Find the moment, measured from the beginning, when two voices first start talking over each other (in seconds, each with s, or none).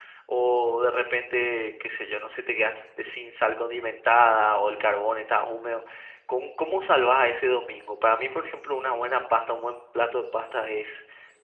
none